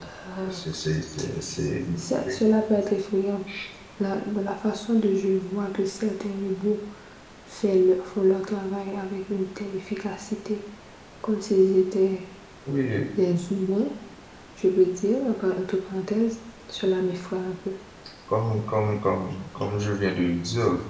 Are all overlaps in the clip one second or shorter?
Yes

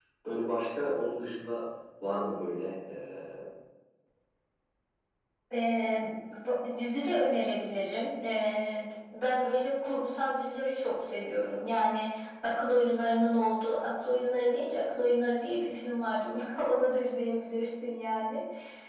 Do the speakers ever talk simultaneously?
No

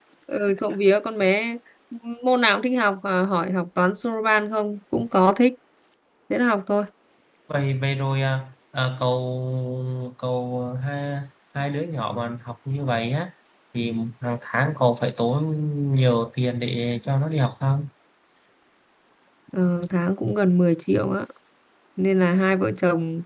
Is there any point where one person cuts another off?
No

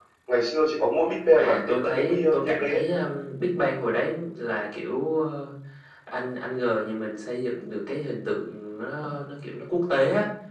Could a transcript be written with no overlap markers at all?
No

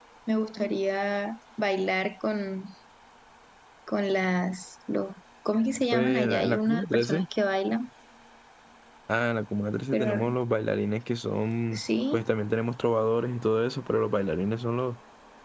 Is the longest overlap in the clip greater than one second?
Yes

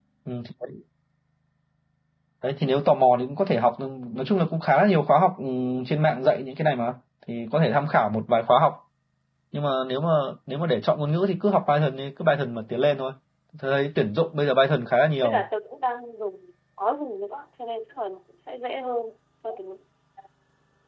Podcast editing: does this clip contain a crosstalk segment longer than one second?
No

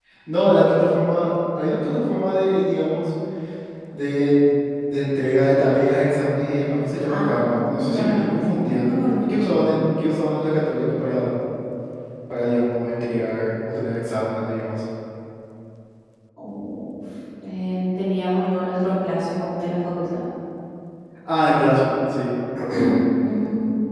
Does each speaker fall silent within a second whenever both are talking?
No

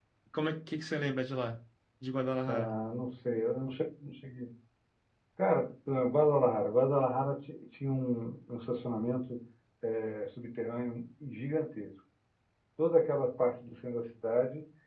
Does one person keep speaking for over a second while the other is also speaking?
No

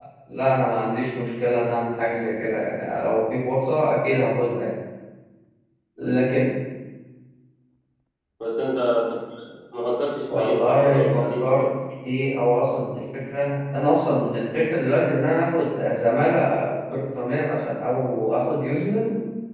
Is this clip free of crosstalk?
No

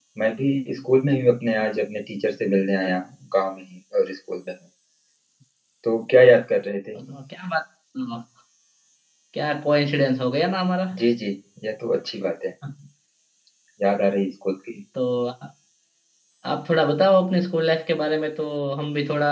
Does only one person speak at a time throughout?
Yes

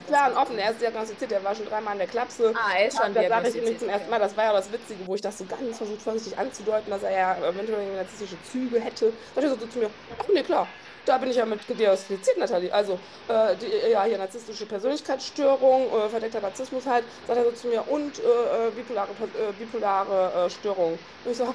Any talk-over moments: Yes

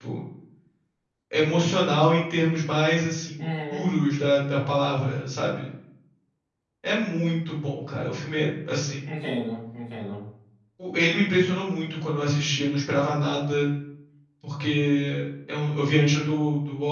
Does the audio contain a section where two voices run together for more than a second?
No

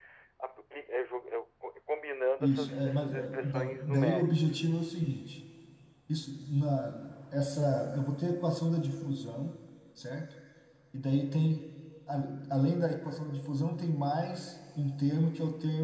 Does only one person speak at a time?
No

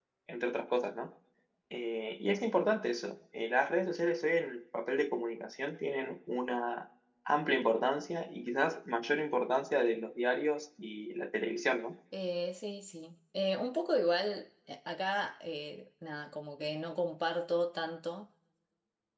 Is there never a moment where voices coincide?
Yes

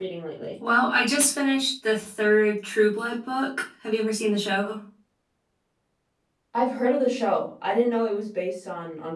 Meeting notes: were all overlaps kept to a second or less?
Yes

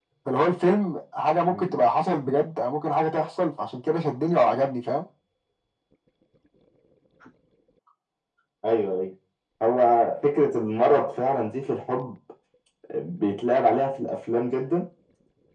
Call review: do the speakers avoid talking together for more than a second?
Yes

